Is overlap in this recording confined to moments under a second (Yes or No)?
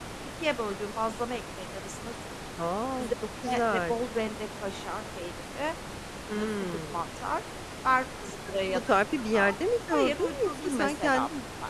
No